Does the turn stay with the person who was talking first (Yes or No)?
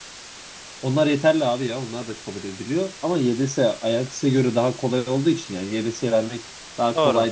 Yes